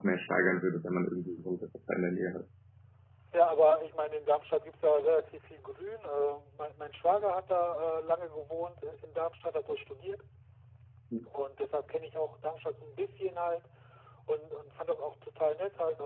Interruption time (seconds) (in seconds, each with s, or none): none